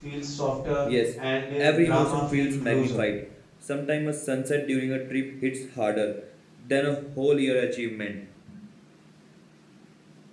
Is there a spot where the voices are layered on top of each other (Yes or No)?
Yes